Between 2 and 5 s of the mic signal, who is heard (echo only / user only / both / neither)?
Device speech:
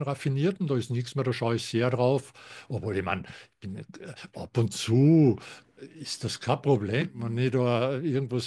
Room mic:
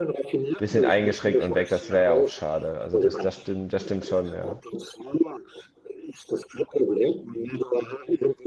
both